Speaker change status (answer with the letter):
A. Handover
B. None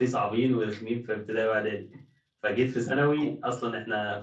B